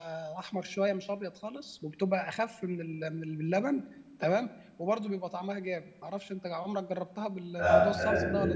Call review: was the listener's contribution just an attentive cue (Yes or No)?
No